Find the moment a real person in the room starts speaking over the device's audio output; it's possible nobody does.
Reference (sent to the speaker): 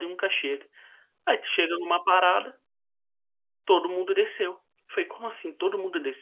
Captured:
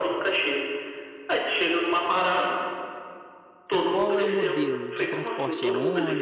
3.9 s

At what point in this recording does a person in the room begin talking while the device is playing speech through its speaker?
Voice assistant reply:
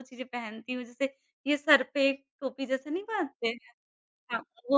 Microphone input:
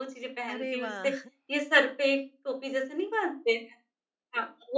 0.5 s

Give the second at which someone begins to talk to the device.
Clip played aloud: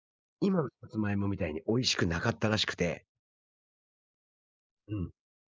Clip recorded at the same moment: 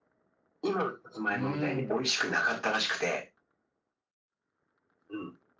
1.3 s

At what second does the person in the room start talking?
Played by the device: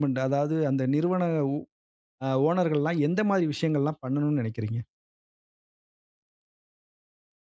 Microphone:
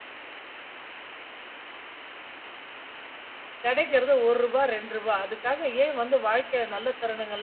3.6 s

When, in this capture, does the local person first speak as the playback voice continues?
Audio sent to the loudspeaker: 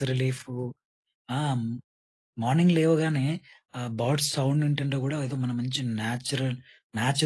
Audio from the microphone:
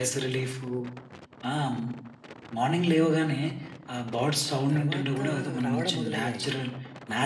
4.7 s

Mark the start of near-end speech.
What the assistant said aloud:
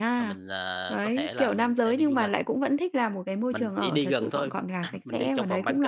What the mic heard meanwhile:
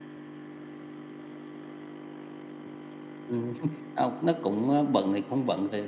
3.3 s

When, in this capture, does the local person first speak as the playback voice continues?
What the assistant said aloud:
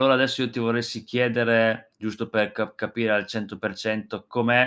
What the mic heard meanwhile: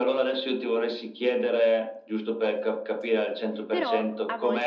3.7 s

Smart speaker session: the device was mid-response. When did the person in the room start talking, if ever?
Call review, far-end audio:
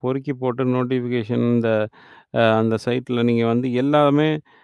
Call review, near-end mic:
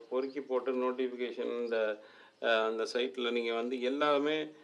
none

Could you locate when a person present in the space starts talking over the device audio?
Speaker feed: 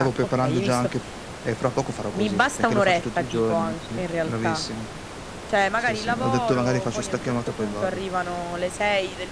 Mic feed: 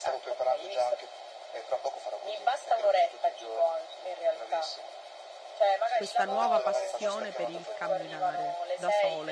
5.9 s

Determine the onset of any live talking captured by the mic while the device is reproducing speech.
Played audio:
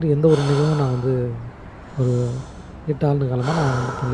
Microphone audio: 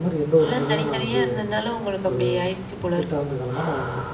0.4 s

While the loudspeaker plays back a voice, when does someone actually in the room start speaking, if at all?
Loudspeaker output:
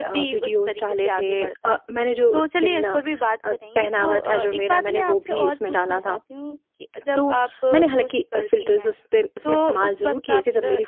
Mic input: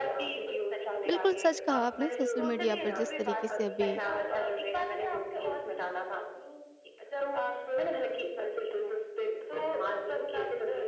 1.1 s

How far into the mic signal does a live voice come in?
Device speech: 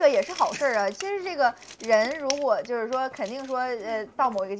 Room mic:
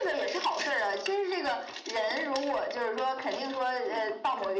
none

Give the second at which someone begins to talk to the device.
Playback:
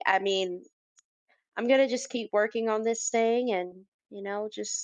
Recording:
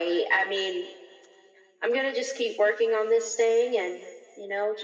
none

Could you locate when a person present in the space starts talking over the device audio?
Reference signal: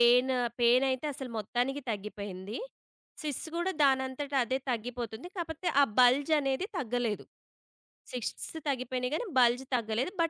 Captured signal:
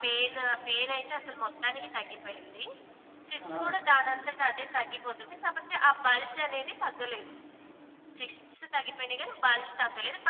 3.5 s

